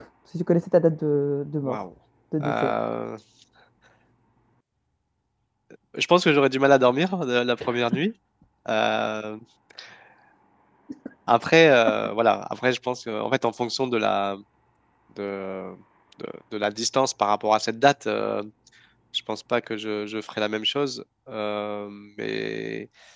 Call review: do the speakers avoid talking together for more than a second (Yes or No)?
Yes